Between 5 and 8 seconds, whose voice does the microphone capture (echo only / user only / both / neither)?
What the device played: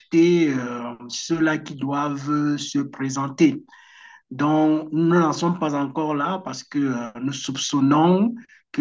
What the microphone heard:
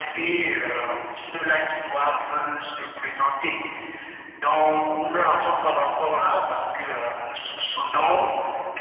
echo only